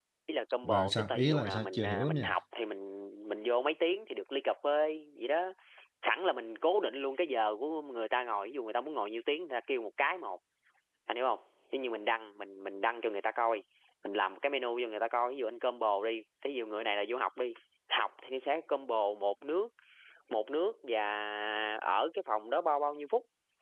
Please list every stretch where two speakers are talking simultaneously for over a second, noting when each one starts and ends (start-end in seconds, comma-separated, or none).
0.7-2.3